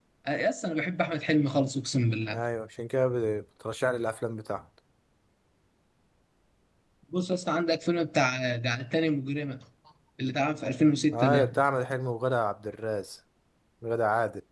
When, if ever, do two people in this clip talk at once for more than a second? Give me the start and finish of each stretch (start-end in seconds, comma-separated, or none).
none